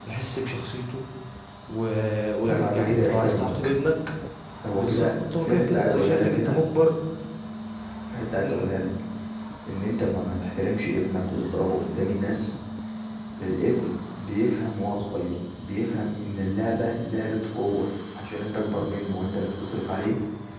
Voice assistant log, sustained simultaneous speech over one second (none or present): present